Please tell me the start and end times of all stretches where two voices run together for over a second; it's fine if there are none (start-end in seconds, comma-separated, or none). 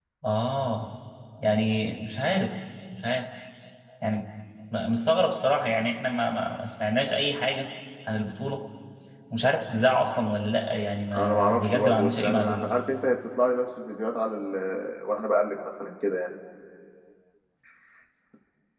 11.2-12.6